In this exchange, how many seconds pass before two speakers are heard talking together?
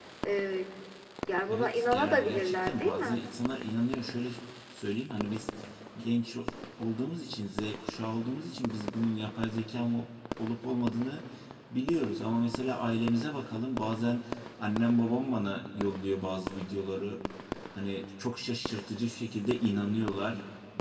1 s

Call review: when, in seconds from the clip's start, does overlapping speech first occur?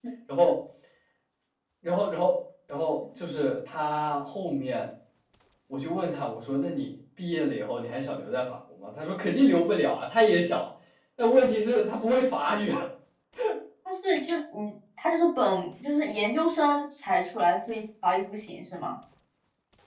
none

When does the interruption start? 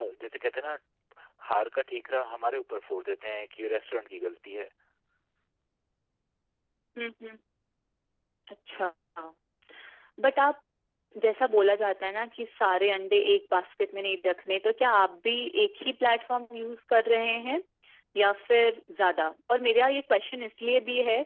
none

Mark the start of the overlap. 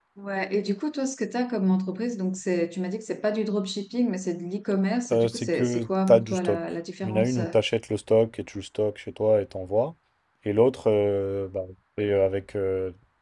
5 s

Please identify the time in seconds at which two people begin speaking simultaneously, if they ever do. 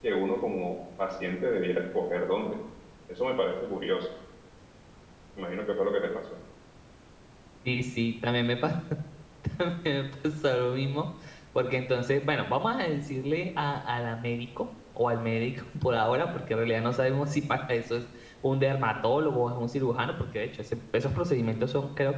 none

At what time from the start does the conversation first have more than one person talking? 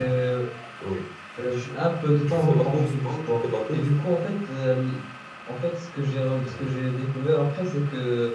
2 s

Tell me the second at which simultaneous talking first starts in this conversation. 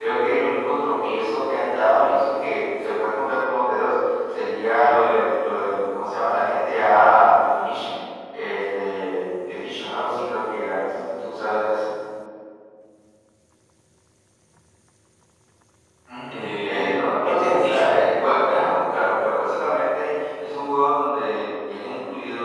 16 s

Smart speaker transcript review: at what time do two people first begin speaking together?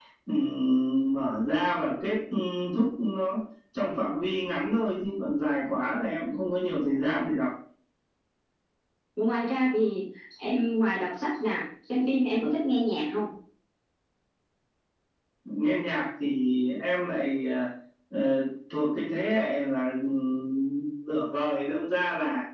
none

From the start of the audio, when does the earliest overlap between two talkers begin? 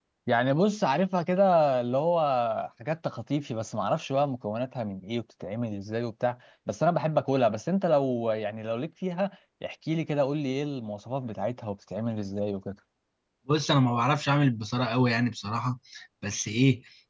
none

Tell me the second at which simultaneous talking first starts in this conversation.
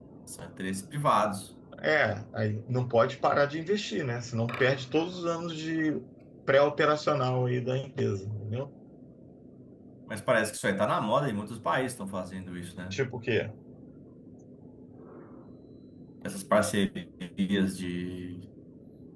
none

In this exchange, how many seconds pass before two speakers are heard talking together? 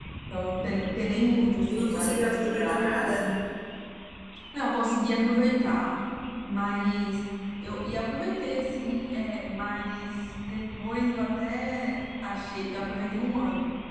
2 s

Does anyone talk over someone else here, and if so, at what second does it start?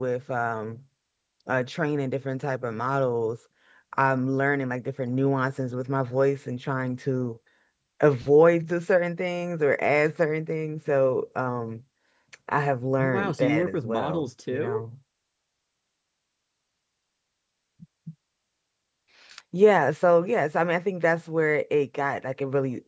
13 s

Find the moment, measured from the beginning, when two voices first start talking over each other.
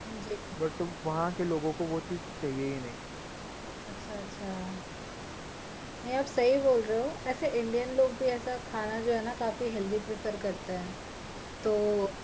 none

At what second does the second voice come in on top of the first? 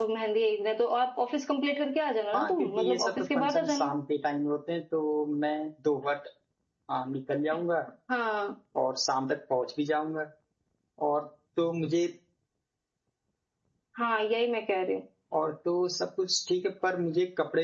2 s

